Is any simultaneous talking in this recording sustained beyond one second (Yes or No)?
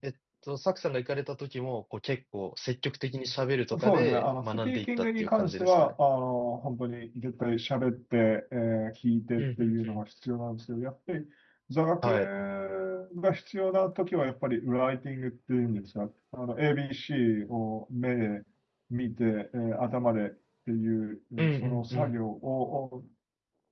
Yes